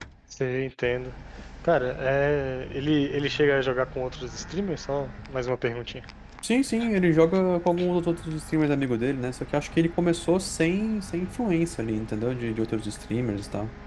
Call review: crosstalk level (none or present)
none